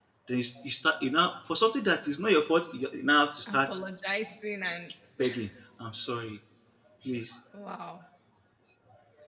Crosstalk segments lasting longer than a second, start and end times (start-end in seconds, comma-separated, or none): none